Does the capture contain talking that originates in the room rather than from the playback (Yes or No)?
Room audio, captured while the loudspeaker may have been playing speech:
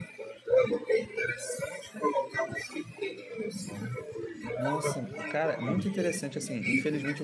Yes